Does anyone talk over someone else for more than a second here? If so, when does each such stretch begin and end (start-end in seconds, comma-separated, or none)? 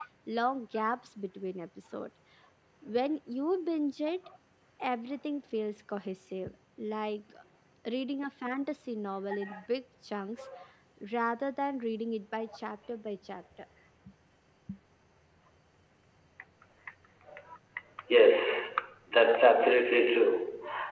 none